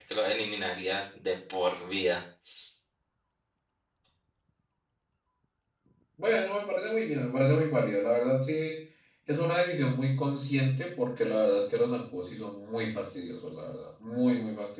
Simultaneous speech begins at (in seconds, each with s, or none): none